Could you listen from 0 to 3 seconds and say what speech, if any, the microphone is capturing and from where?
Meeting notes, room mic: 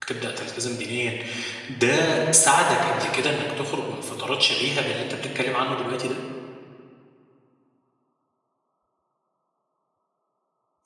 user only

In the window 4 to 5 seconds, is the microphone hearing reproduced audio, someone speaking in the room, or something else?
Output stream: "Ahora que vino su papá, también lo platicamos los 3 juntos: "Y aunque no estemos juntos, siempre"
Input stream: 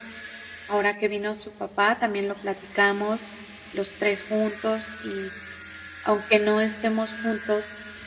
echo only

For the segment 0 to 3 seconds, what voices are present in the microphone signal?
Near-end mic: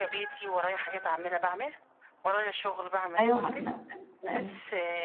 echo only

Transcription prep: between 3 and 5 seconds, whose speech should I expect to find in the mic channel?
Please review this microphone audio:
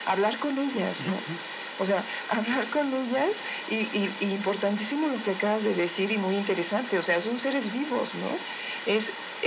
echo only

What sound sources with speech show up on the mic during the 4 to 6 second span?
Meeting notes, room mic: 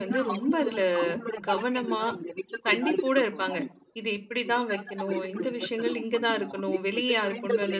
both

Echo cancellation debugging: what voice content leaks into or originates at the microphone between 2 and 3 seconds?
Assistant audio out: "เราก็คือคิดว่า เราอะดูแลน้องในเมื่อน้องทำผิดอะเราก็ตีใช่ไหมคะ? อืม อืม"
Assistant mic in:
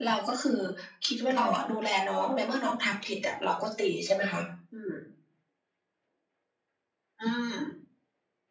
echo only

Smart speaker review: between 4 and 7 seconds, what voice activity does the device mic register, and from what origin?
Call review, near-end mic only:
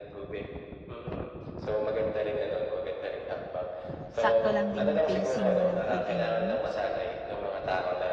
both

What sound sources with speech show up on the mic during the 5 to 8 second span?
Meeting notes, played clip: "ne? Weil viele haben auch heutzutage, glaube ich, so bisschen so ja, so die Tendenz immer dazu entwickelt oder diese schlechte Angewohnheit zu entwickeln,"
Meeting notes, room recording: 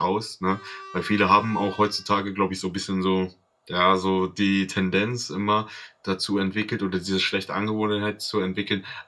echo only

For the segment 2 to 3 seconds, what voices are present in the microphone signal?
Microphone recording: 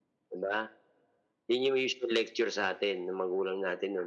echo only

